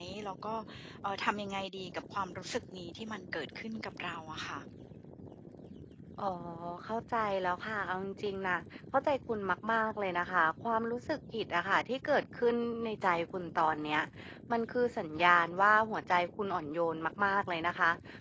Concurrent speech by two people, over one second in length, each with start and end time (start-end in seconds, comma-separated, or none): none